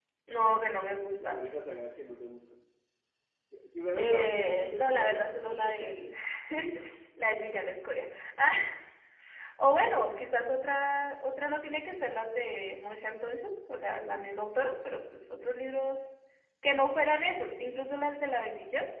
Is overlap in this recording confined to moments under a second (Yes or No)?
No